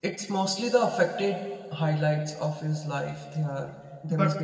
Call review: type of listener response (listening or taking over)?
taking over